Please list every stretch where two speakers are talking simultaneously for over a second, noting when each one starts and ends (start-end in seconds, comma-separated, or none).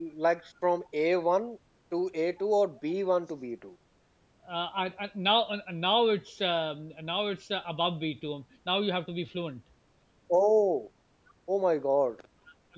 none